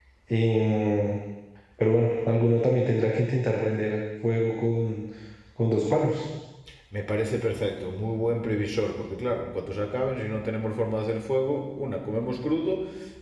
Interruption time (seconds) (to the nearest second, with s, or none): none